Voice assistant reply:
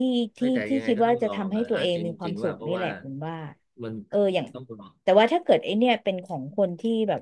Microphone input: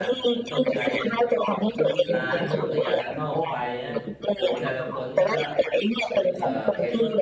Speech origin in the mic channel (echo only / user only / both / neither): both